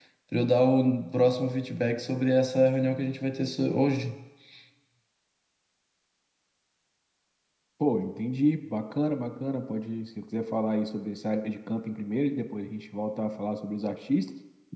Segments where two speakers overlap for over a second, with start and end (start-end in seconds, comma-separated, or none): none